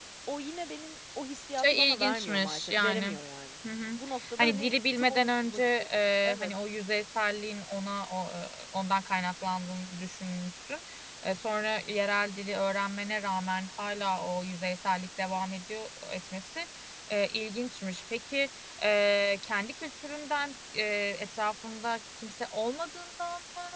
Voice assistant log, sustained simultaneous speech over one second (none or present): present